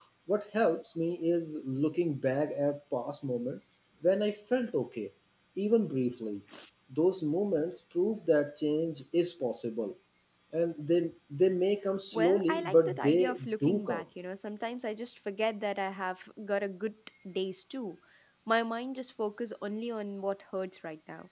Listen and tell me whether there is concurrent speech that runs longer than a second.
Yes, from 12.1 s

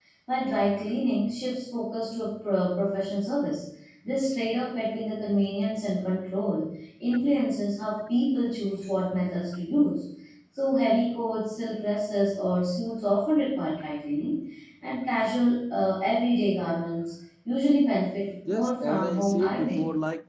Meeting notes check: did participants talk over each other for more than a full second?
Yes, from 18.4 s

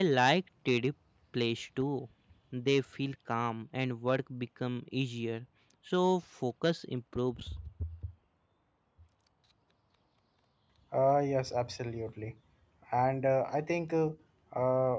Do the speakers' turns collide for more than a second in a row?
No

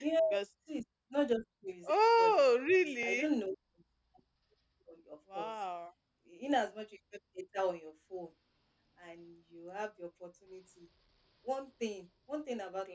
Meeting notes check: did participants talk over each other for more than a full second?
Yes, from 1.9 s

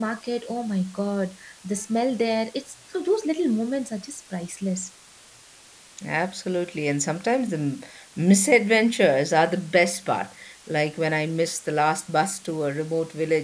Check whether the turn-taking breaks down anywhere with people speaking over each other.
No

